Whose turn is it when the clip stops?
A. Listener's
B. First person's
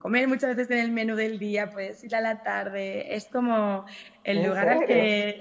B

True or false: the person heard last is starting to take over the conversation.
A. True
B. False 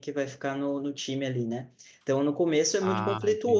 B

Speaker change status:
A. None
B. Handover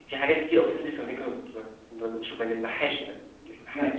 B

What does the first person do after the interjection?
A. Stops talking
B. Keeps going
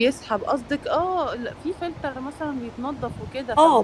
A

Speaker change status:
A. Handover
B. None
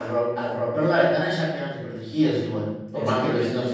A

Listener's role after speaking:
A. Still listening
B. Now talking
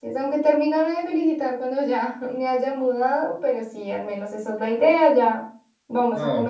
A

